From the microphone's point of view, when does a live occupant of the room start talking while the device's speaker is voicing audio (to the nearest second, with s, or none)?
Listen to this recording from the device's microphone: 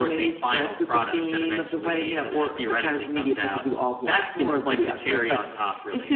none